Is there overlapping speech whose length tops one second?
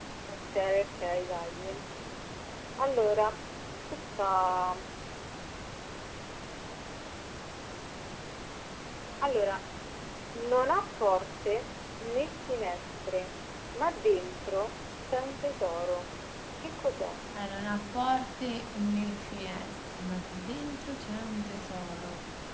No

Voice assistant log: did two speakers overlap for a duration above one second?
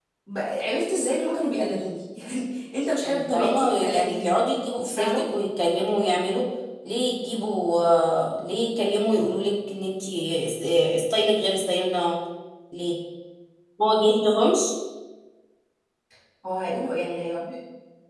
Yes, from 3.0 s

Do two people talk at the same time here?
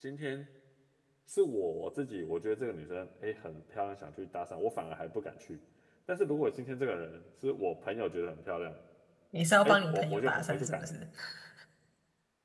Yes, from 9.6 s

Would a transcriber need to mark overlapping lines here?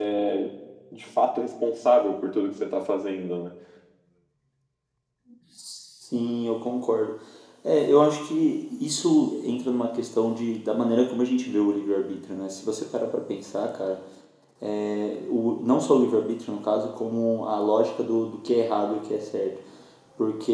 No

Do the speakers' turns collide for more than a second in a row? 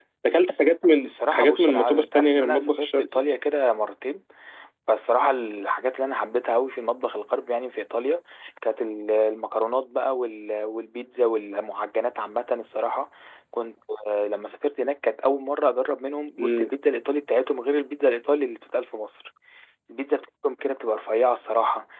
Yes, from 1.0 s

